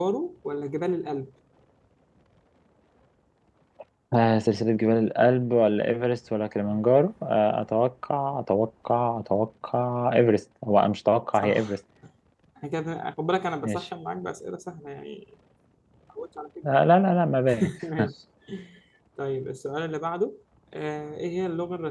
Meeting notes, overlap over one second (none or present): none